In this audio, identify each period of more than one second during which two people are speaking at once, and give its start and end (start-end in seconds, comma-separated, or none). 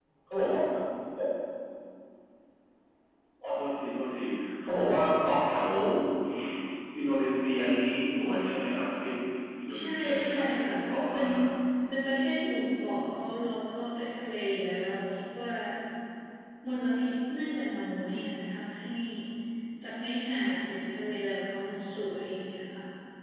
9.8-11.3